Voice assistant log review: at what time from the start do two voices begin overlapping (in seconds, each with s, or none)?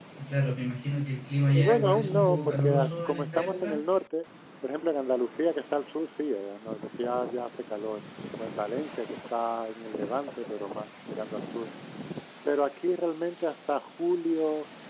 1.4 s